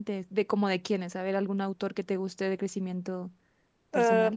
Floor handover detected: Yes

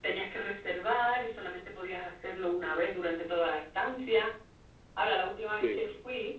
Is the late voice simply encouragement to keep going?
Yes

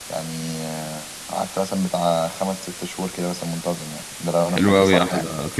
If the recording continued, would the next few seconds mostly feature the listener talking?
Yes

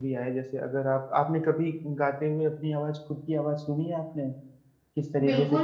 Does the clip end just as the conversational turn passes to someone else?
Yes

